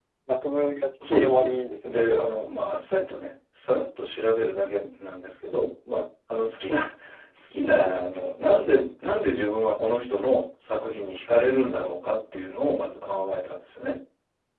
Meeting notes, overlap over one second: present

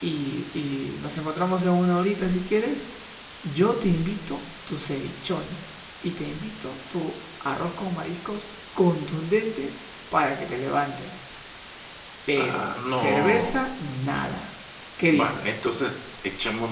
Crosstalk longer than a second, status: present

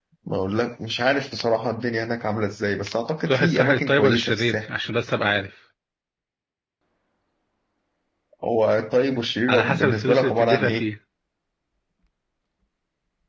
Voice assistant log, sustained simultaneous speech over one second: present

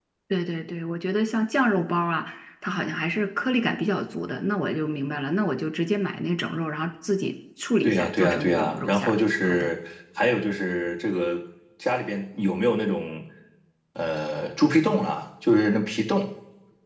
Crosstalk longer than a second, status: present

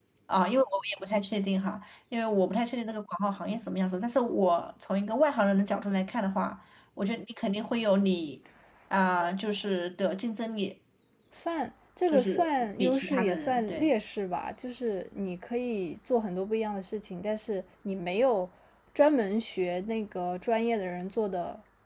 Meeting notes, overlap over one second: present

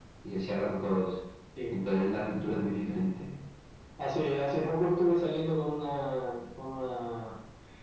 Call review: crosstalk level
none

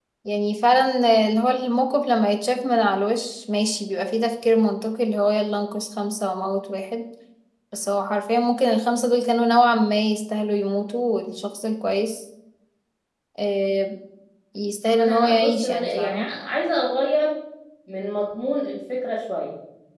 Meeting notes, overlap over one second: present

